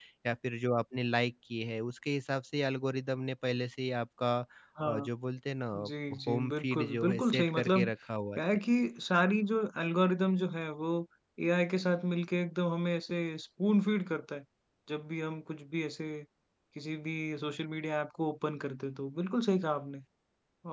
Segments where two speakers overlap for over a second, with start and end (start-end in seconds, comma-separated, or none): 6.3-7.9